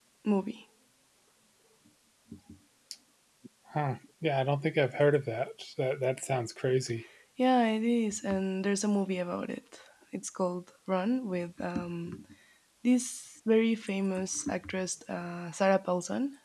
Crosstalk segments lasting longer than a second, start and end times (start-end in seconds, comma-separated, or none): none